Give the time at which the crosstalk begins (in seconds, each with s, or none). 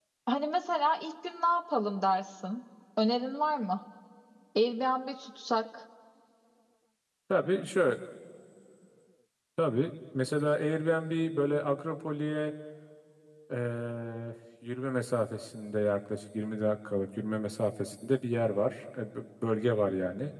none